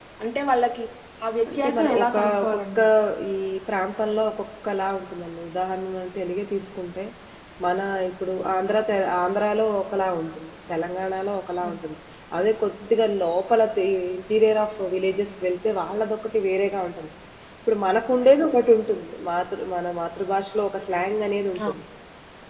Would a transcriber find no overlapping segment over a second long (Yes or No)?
No